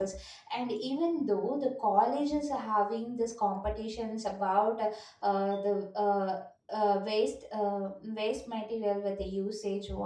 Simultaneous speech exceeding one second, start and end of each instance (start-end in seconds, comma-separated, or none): none